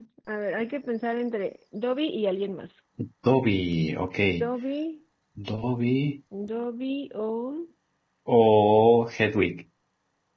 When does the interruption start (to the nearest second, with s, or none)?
none